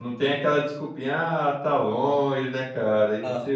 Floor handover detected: No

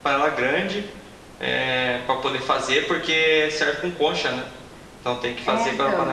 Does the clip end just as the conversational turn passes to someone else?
No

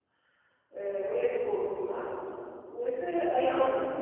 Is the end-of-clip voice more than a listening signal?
No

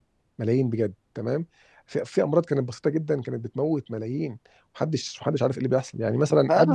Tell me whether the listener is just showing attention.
No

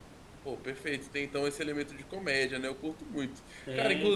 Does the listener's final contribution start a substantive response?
Yes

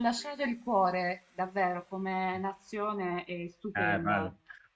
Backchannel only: No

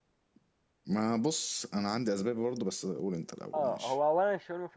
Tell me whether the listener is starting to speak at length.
Yes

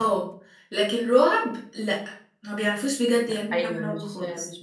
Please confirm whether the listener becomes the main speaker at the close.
Yes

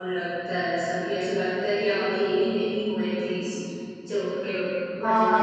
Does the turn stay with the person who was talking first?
No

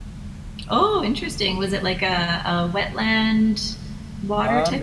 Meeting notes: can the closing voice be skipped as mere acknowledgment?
No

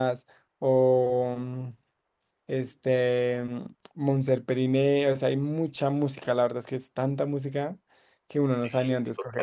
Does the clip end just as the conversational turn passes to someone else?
Yes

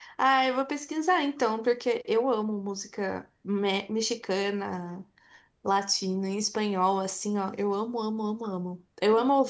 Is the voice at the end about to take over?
No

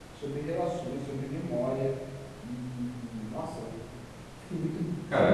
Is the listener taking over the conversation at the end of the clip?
Yes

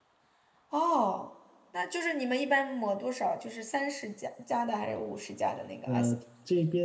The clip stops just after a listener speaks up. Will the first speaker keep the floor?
No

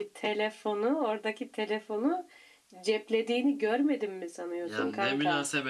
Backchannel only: No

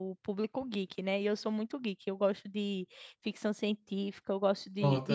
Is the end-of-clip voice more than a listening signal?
No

